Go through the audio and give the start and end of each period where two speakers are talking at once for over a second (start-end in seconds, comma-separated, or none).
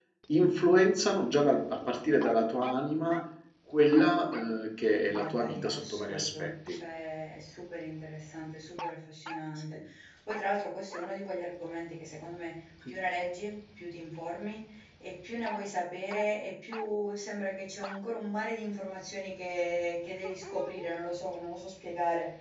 5.0-6.8